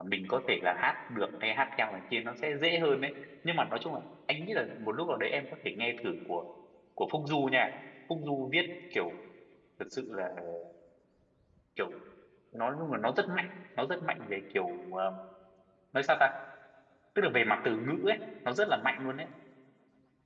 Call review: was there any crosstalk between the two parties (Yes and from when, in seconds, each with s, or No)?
No